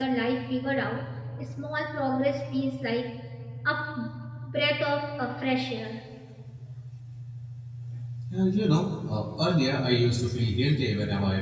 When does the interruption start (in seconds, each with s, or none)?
none